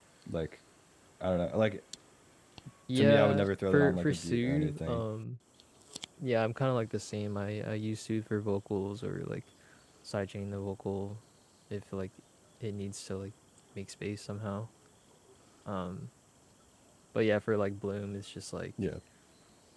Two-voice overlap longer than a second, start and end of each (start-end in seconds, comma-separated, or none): 2.9-5.0